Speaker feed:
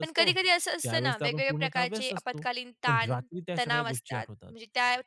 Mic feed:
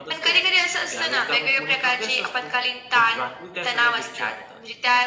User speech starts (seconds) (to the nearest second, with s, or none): none